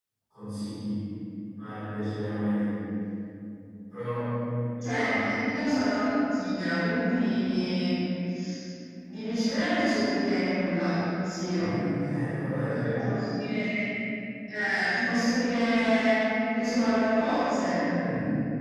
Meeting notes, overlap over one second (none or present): none